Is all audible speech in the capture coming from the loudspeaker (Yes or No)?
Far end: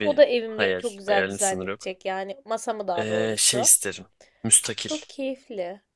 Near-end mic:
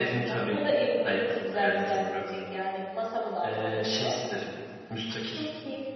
Yes